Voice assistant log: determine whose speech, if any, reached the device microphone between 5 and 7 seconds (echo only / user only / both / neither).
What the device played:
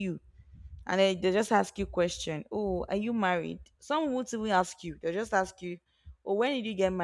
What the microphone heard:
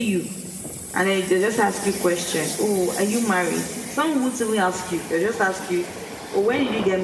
echo only